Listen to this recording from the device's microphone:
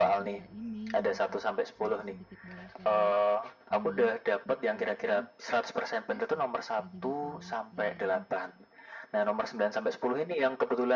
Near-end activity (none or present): present